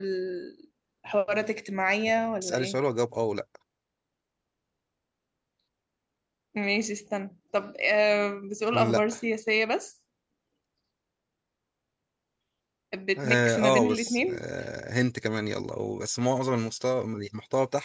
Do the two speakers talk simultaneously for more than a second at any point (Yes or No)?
Yes